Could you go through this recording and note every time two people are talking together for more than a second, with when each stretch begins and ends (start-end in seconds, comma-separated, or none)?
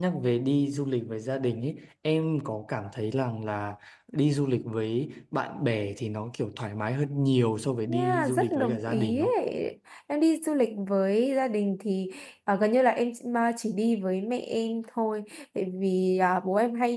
7.9-9.3